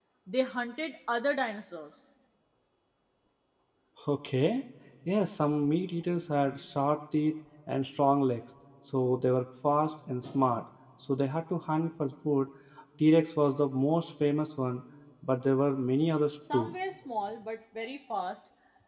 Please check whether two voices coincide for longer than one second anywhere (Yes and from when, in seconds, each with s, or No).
No